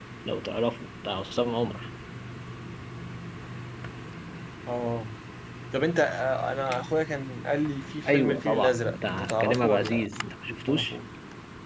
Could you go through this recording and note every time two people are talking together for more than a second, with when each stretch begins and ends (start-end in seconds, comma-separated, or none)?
8.1-10.0